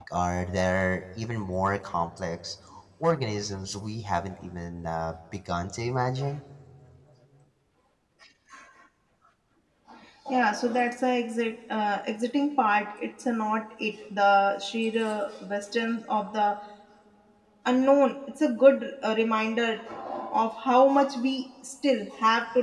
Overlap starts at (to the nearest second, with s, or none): none